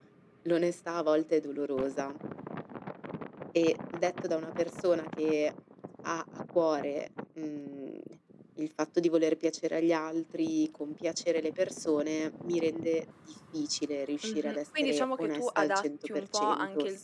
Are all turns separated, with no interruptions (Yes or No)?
No